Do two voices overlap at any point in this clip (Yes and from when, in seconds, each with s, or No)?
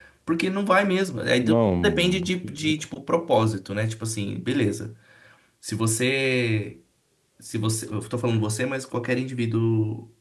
Yes, from 1.4 s